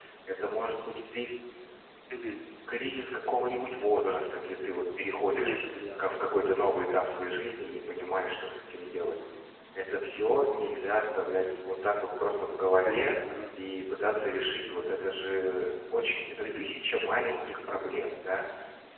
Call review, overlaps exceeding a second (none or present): none